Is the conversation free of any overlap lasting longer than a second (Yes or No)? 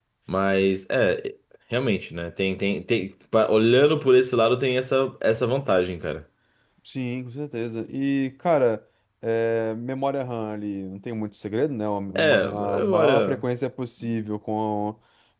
No